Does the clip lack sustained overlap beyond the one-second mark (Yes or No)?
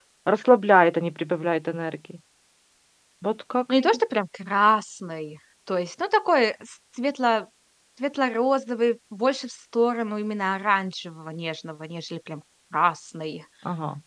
Yes